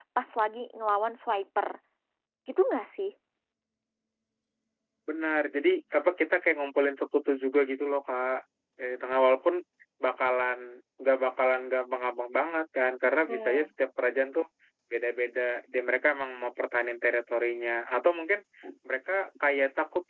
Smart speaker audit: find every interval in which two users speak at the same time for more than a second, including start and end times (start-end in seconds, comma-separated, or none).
none